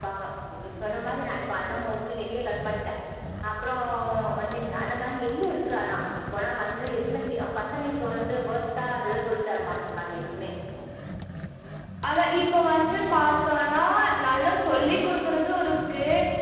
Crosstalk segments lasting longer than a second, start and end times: none

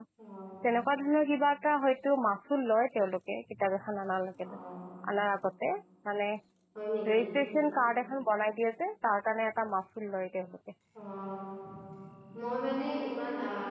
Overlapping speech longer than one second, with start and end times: none

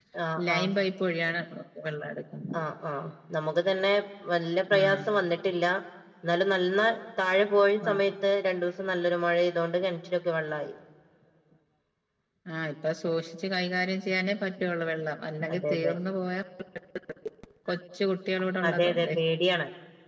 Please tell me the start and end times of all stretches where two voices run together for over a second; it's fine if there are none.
none

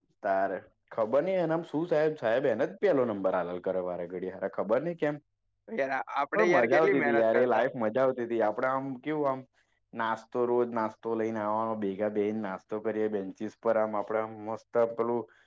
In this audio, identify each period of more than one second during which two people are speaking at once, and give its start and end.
6.3-7.6

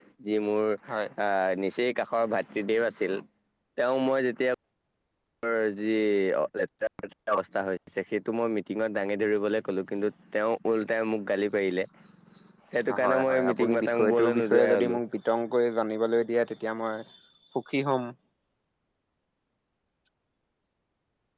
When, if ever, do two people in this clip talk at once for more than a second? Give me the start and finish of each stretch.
13.0-15.0

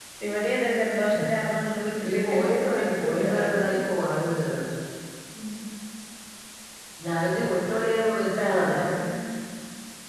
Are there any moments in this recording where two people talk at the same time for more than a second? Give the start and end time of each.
2.1-3.6

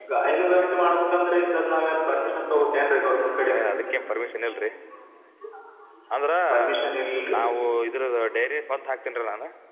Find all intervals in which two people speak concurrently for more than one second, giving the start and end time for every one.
none

